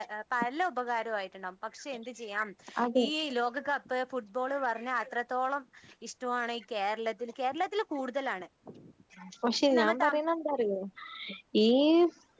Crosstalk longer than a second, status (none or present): none